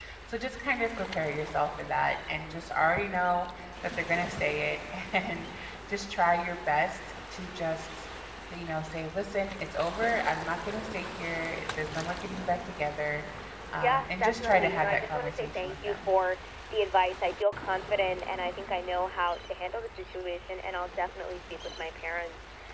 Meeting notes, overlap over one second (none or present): present